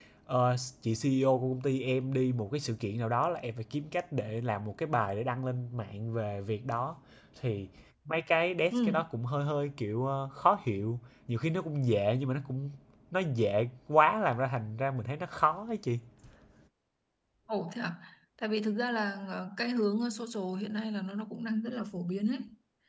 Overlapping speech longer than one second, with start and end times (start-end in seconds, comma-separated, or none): none